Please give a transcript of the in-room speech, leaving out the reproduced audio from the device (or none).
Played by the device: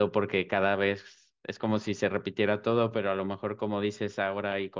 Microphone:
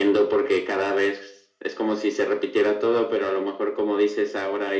none